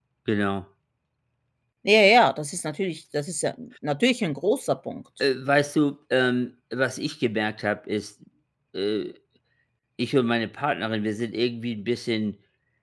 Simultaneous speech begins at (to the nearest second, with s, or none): none